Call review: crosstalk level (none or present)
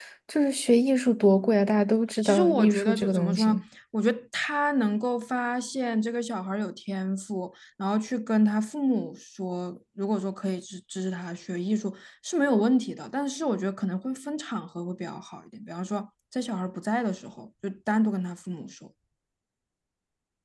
present